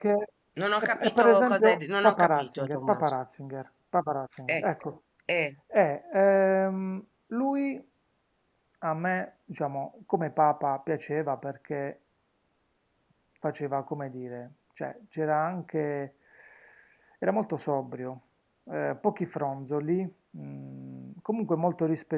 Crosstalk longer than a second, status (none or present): present